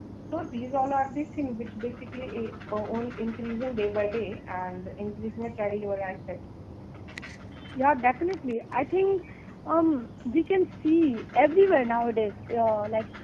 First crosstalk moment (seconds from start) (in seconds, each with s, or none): none